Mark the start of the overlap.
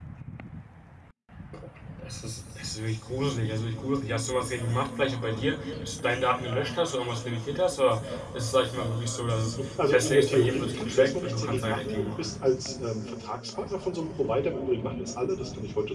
9.6 s

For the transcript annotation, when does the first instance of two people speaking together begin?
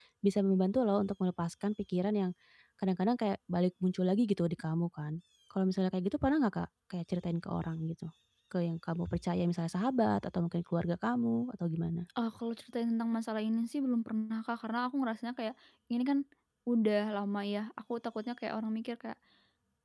none

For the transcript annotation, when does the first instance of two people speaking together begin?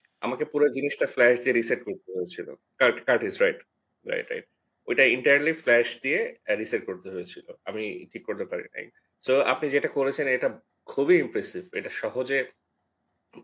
none

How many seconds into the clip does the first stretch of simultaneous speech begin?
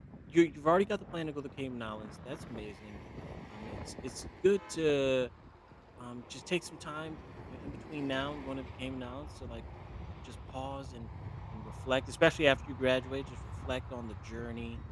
none

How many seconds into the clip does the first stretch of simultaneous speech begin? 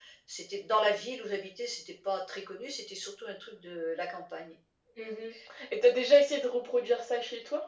none

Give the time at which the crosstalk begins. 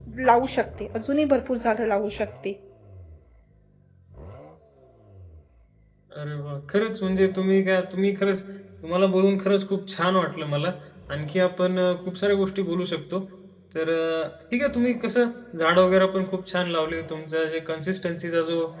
none

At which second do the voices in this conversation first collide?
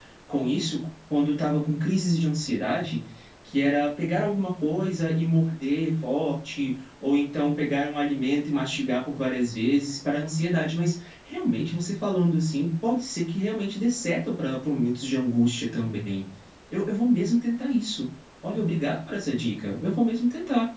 none

